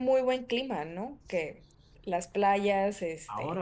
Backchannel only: No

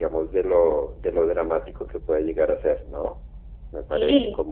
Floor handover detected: No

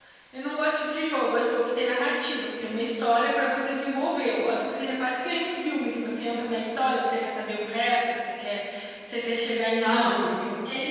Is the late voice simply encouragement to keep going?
No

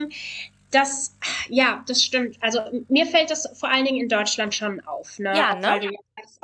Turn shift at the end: No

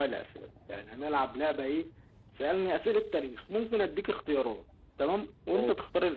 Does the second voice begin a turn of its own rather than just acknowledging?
No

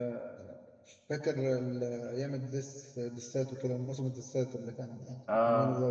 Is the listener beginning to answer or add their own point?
Yes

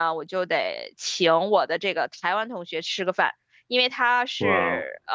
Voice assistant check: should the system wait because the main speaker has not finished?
Yes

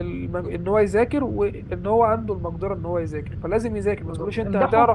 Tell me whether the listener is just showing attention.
No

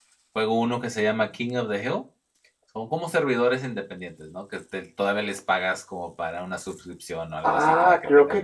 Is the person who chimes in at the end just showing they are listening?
No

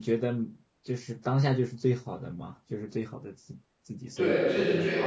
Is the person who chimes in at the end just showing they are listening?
No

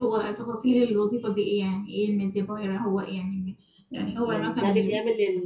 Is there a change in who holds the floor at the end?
Yes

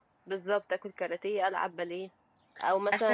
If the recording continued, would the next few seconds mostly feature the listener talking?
No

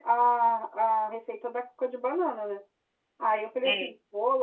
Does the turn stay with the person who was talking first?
Yes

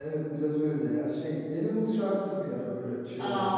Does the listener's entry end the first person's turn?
Yes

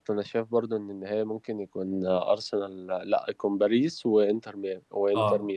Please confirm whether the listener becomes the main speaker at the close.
Yes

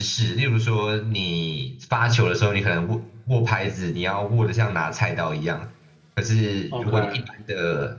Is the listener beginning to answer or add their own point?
No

